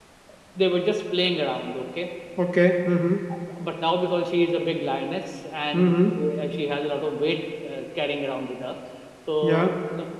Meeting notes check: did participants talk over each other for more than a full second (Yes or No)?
No